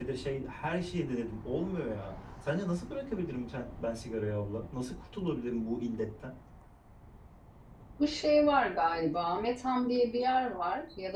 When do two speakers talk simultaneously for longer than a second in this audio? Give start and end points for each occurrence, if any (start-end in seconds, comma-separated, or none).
none